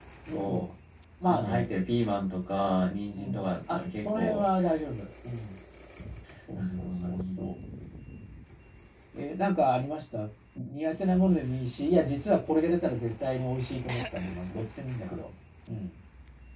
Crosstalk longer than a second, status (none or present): present